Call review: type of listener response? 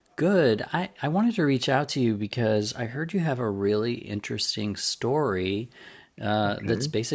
listening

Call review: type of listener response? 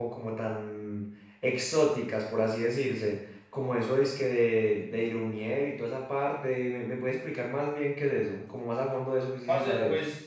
taking over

